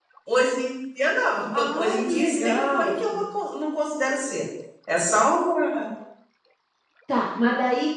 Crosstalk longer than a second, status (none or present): present